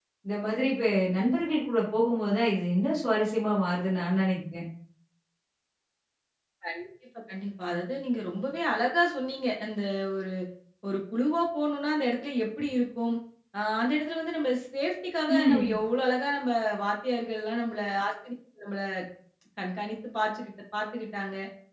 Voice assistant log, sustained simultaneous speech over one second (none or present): none